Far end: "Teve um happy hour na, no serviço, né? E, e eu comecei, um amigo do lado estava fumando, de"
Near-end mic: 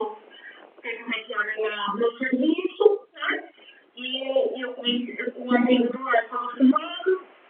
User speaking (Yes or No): No